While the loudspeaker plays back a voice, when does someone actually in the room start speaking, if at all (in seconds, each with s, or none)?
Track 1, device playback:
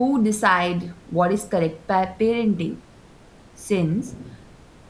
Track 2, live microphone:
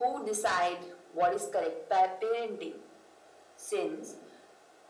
none